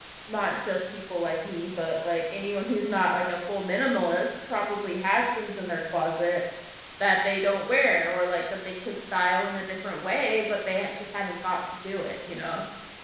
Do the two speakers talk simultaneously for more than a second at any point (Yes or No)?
No